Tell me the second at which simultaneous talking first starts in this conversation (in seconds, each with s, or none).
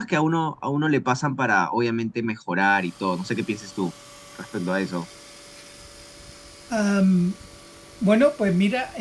none